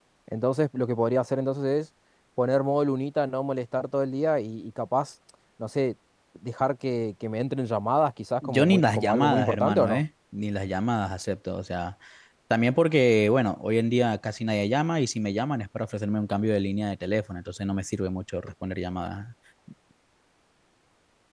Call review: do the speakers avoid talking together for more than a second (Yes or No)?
No